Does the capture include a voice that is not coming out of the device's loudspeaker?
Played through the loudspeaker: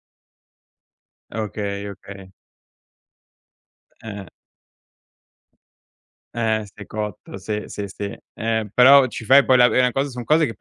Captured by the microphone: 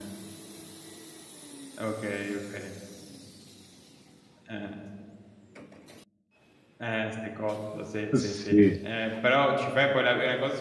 Yes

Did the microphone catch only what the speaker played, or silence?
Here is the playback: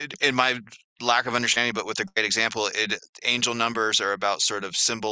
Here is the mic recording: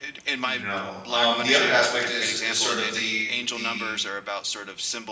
No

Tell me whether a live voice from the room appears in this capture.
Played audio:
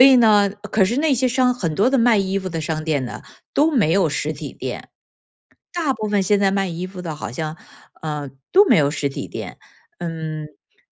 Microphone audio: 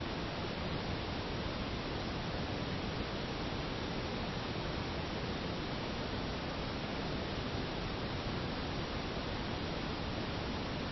No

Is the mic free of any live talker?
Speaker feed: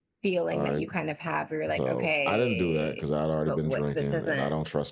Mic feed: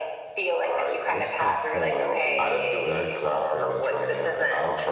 No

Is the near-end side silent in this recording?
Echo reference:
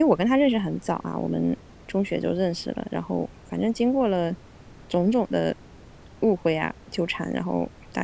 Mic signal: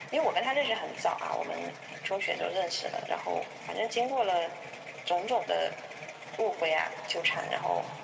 Yes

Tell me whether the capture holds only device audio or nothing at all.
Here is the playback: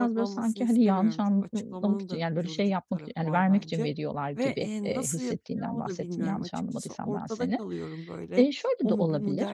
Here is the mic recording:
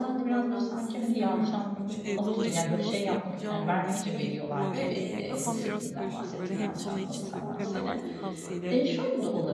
No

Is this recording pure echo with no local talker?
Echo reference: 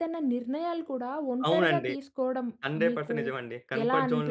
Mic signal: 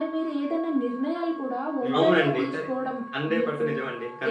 No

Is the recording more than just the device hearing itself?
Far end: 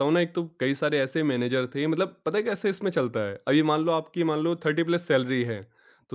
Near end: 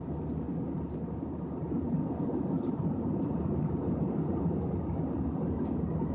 No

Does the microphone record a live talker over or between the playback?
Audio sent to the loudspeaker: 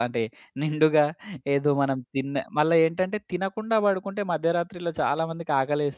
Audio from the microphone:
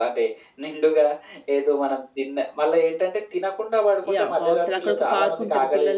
Yes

